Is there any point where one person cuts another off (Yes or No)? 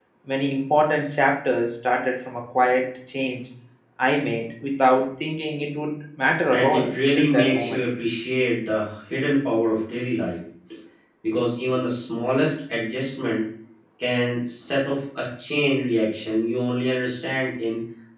Yes